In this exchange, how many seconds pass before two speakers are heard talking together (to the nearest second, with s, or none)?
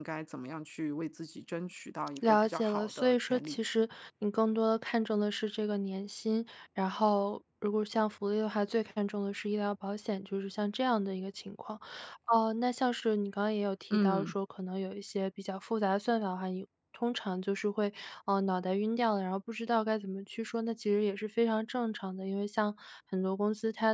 2 s